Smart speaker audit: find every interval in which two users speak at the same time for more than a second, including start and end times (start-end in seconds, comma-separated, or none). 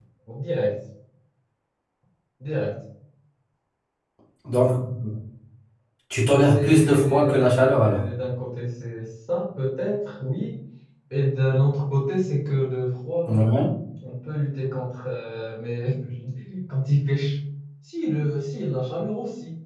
6.4-8.0